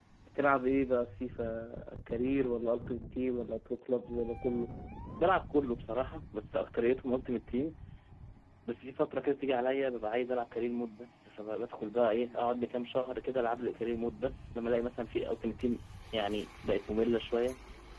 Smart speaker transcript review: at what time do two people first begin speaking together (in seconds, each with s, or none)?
none